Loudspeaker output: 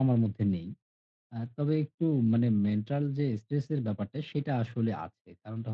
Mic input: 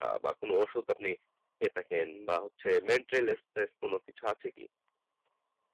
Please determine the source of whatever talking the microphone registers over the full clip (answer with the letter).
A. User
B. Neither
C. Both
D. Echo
A